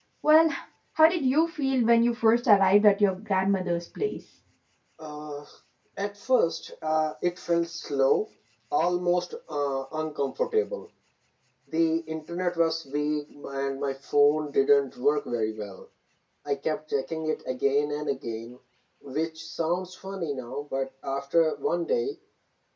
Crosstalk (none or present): none